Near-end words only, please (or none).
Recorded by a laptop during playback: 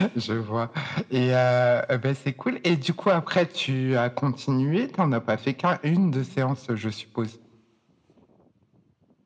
none